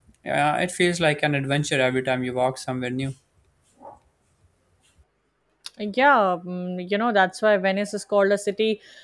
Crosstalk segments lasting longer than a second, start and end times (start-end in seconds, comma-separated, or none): none